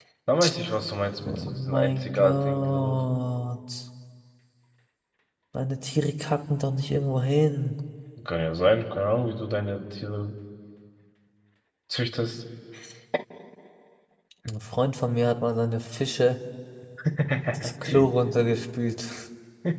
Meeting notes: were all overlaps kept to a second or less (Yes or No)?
No